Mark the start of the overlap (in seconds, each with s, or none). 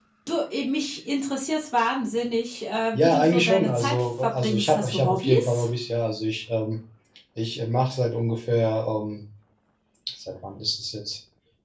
2.9 s